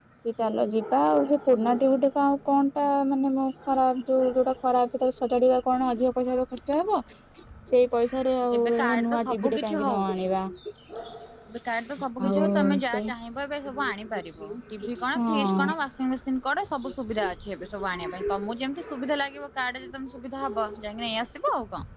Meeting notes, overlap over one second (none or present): present